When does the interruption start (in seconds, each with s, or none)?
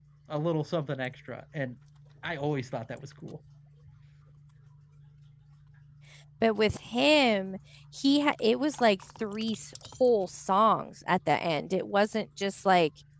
none